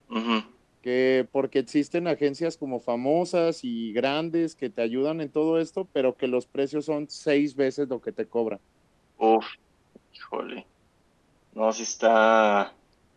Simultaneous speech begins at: none

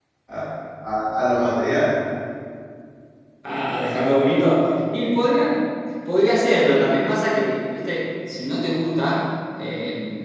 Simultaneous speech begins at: none

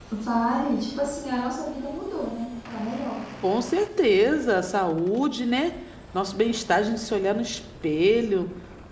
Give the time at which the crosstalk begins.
none

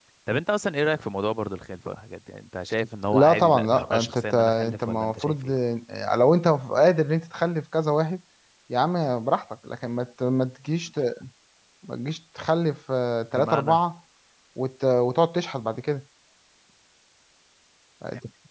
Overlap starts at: 3 s

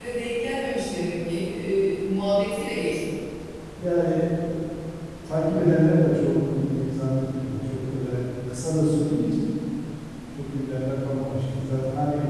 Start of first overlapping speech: none

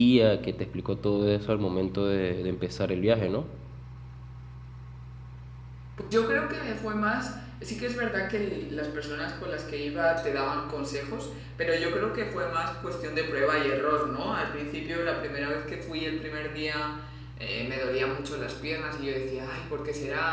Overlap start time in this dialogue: none

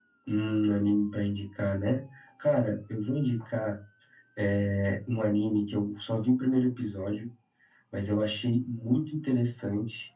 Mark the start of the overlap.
none

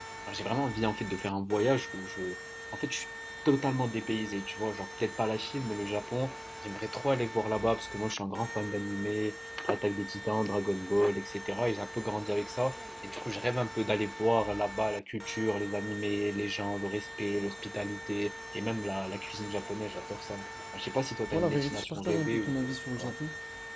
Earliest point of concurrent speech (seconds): 21 s

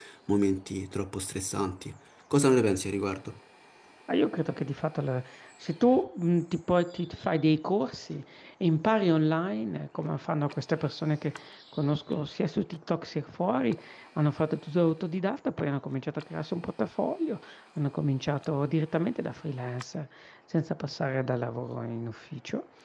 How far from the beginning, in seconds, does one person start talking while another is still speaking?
none

